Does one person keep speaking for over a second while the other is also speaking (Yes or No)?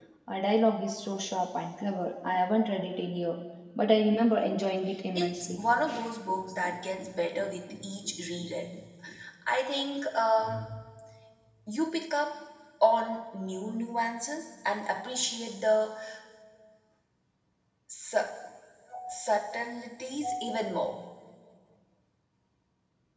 No